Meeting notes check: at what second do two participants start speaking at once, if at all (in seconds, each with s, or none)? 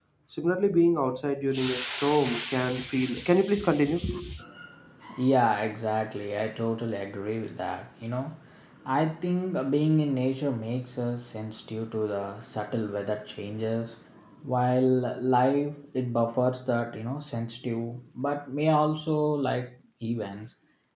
none